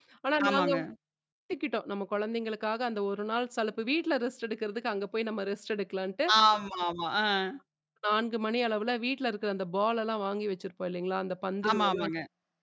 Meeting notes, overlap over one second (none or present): none